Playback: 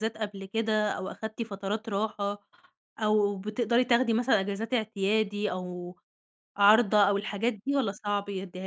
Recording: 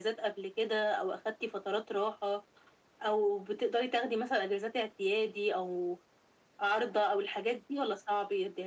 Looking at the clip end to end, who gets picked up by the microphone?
echo only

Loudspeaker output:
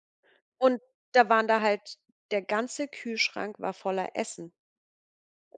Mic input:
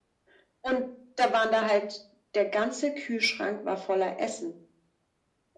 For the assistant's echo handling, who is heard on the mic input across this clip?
echo only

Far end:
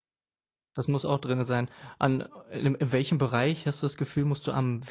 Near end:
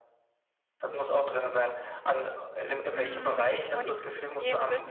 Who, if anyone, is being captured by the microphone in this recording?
both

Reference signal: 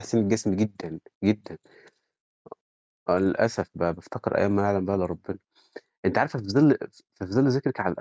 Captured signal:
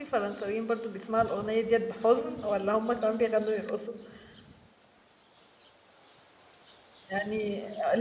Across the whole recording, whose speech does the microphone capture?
user only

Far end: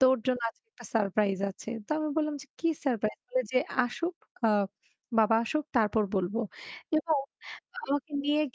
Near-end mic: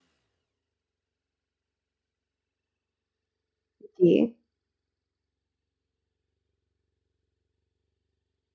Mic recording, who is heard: user only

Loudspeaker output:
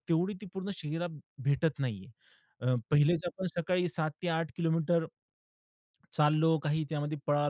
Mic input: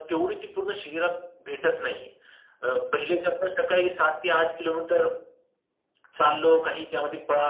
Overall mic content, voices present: echo only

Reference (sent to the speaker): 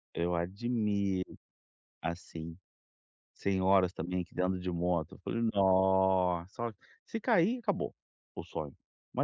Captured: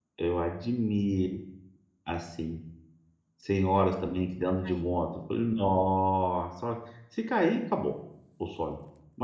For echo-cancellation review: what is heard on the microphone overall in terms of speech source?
both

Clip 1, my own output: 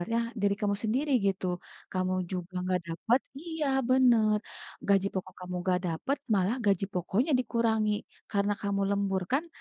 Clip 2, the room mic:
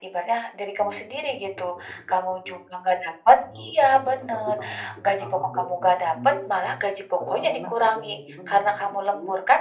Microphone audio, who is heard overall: both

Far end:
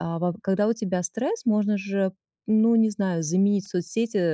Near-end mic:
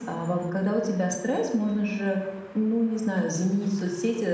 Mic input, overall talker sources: echo only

